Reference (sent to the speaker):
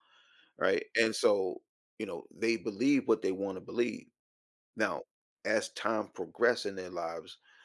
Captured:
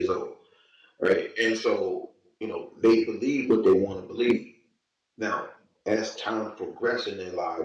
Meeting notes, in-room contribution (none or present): none